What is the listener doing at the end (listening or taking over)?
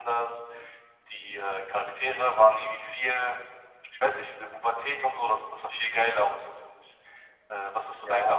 taking over